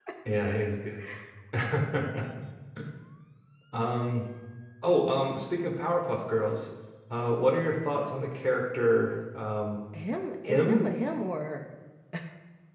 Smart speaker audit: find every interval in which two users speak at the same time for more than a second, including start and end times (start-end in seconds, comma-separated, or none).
none